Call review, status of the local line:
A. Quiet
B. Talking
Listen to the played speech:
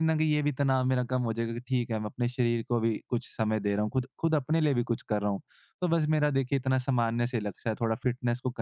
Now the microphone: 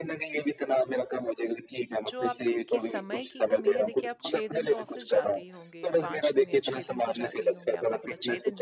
B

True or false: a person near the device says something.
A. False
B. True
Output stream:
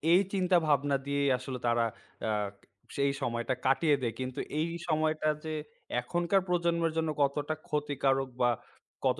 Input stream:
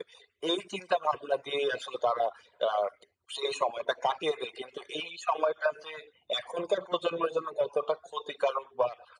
A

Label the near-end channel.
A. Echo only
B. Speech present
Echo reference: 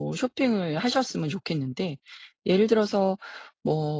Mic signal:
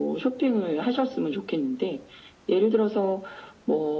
A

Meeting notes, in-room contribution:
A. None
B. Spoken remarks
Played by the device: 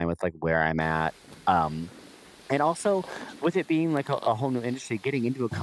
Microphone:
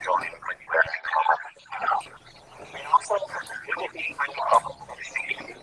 A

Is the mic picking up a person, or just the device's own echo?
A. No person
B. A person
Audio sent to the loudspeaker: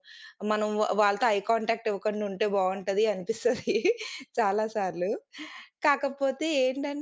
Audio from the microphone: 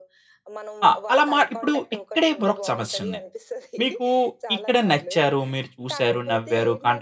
B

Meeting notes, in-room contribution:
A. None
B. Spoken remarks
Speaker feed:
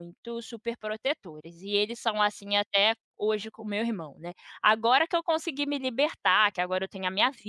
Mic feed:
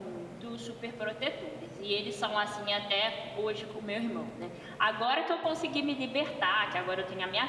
A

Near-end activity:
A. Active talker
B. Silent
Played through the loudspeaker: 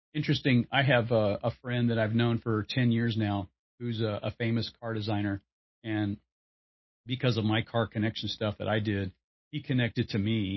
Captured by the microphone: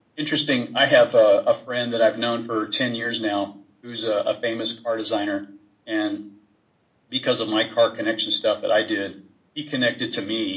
B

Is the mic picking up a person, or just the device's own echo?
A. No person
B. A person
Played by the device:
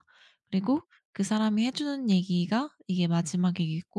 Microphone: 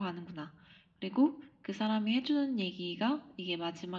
A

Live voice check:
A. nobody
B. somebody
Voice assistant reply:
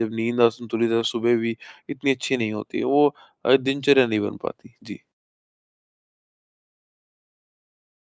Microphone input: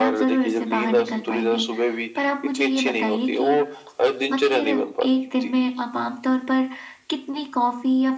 B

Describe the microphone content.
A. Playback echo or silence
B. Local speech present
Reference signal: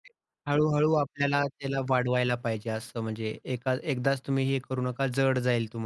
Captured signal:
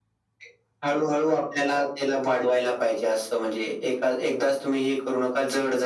A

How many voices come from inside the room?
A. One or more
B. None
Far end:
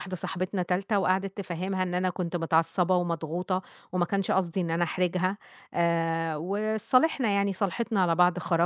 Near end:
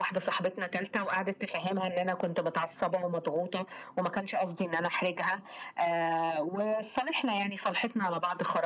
B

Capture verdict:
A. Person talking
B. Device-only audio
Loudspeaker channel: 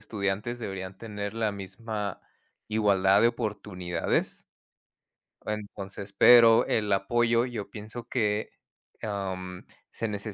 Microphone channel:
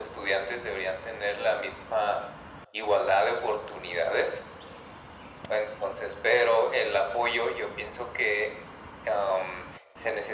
B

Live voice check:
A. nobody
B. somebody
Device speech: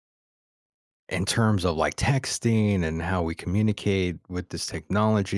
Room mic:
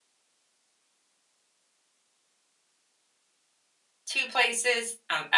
B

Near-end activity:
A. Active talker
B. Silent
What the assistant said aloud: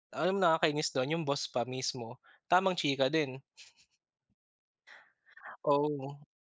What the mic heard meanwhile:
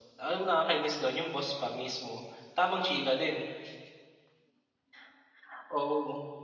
B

